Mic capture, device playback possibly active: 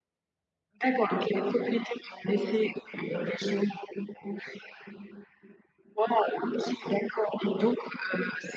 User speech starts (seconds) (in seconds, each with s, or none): none